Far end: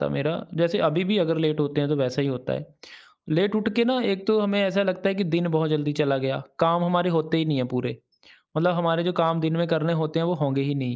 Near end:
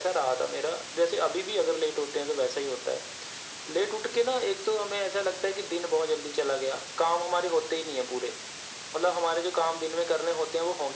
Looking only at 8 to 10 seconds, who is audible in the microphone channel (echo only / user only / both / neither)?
echo only